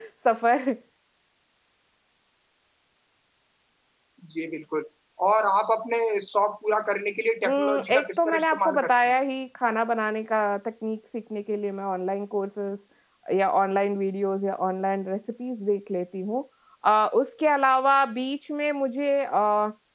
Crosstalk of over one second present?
Yes, from 7.4 s

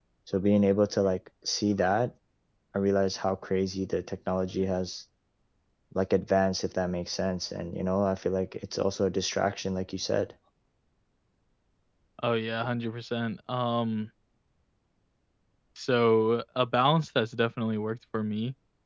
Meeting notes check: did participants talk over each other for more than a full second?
No

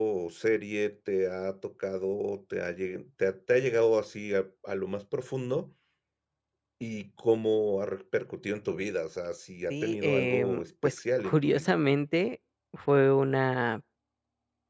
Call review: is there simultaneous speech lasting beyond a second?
Yes, from 9.7 s

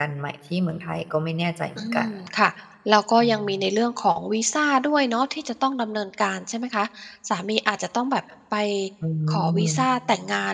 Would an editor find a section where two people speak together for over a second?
No

